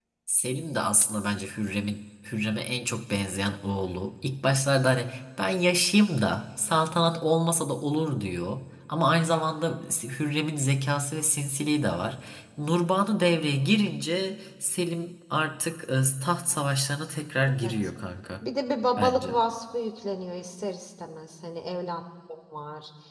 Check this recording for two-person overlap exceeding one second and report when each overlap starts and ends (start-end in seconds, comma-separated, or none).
none